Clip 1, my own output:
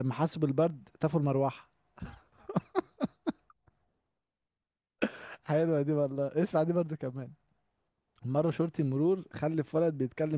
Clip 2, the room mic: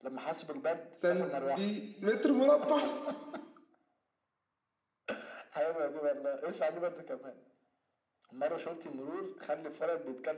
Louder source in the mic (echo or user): user